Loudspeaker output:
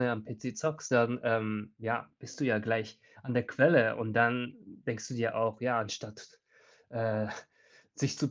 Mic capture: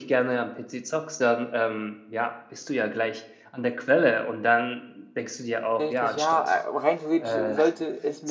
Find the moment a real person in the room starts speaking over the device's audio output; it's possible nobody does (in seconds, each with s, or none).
5.8 s